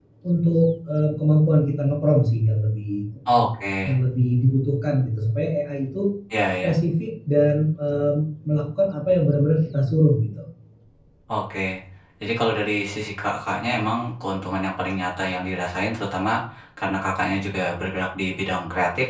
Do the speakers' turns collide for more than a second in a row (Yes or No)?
No